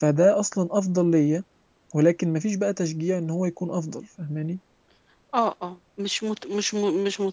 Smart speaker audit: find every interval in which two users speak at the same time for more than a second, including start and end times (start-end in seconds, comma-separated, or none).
none